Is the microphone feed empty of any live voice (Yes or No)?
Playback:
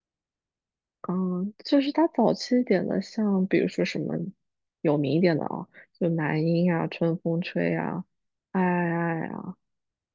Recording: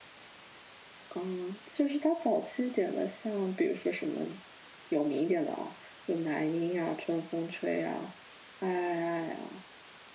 Yes